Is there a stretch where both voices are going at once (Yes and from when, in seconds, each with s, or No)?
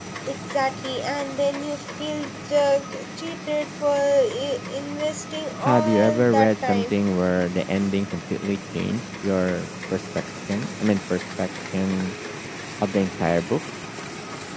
Yes, from 5.6 s